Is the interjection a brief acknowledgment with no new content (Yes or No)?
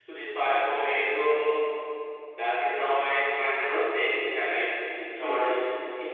Yes